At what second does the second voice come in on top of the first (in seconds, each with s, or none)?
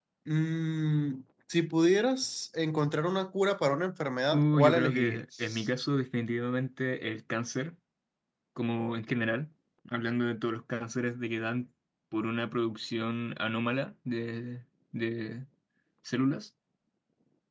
4.3 s